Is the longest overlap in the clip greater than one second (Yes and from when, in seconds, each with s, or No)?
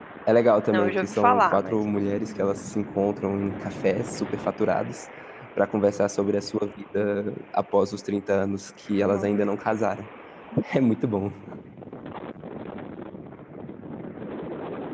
Yes, from 0.7 s